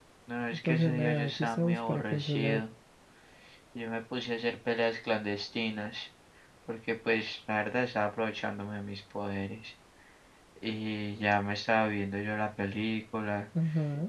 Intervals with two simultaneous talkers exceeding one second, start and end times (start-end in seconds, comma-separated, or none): 0.6-2.6